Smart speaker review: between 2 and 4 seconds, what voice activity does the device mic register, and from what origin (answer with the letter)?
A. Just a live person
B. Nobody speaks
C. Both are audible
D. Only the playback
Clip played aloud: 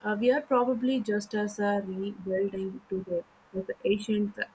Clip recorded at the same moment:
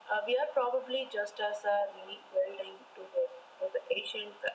D